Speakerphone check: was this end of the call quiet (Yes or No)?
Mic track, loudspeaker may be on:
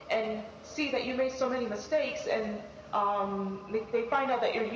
Yes